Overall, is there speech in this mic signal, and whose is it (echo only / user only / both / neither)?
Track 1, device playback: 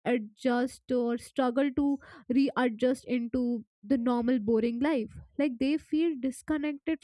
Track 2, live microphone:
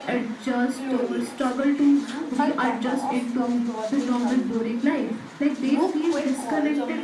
both